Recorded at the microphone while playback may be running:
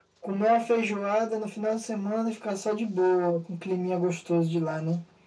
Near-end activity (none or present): none